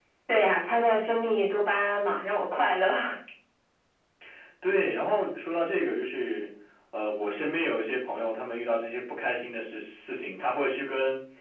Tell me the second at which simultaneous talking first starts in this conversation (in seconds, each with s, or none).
none